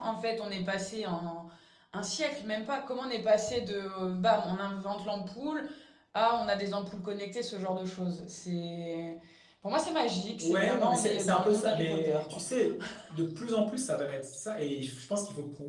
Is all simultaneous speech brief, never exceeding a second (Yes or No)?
No